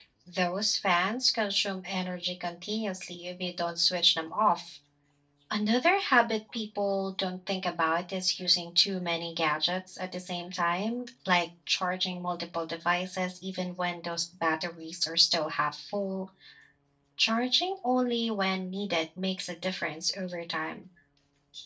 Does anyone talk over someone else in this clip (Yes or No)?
No